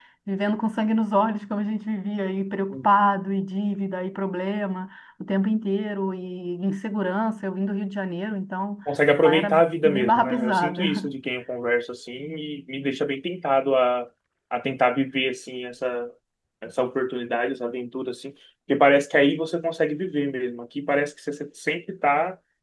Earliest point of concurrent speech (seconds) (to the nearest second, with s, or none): 9 s